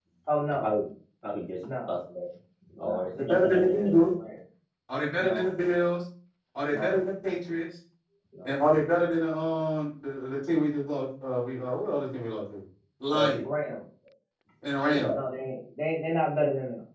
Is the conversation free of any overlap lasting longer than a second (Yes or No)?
No